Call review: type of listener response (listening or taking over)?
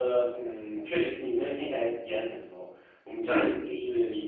listening